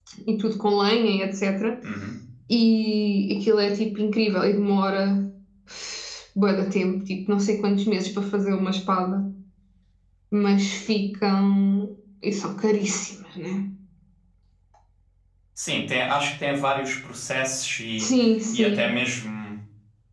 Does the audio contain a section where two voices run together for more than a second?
No

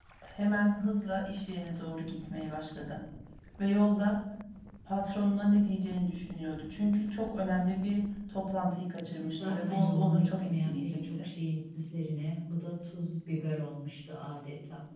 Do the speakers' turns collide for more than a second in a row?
Yes, from 9.3 s

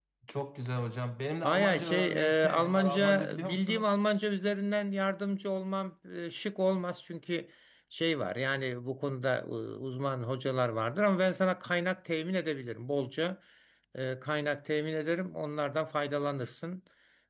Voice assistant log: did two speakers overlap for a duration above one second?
Yes, from 1.4 s

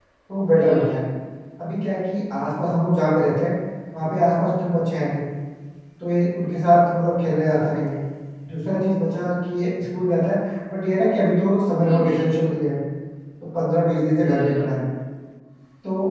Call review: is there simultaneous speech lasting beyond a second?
No

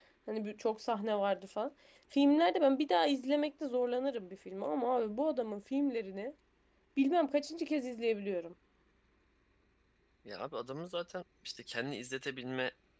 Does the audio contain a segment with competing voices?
No

